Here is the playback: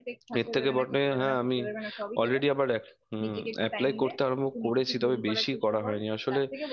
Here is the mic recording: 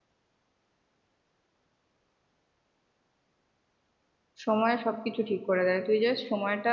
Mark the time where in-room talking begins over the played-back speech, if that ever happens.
4.5 s

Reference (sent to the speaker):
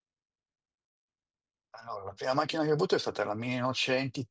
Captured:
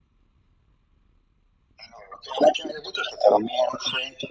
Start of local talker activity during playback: none

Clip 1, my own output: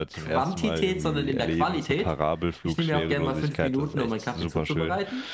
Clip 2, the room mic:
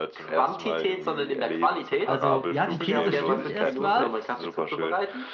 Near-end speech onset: 2.1 s

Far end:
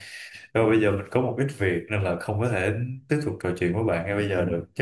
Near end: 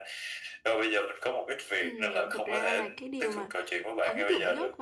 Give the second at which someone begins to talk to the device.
1.8 s

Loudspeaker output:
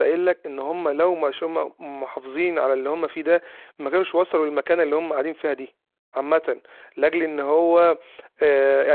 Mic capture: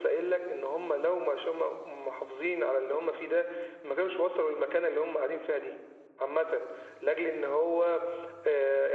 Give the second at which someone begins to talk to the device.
none

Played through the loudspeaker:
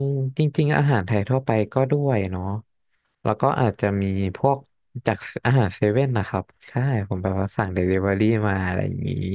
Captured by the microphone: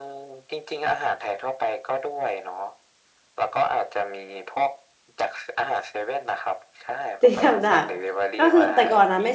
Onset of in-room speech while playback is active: 7.2 s

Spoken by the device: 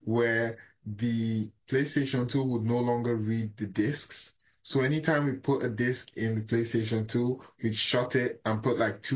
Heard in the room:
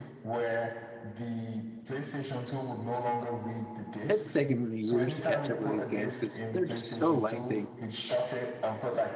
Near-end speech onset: 4.1 s

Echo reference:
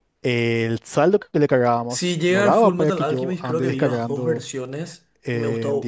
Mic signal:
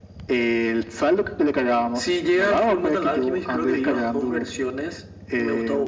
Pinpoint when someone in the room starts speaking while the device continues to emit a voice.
none

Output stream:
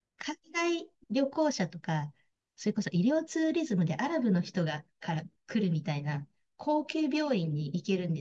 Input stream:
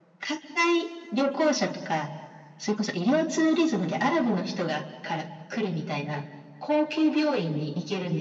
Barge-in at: none

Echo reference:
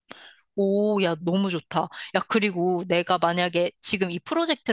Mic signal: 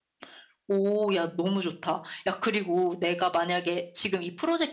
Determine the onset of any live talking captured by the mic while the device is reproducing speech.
none

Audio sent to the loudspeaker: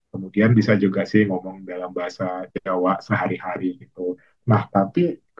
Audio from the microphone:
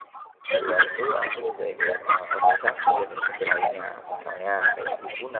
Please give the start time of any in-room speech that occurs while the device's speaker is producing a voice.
0.5 s

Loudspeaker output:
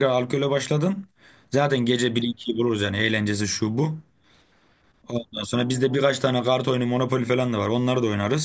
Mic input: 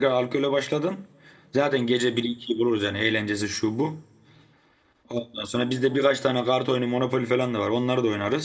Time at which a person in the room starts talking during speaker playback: none

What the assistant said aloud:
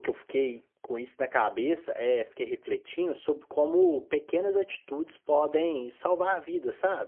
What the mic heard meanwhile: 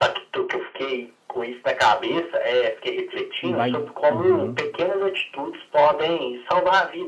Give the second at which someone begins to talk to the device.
3.4 s

